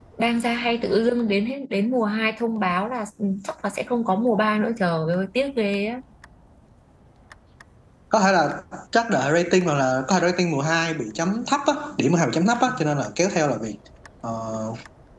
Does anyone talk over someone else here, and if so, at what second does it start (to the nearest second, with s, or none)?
none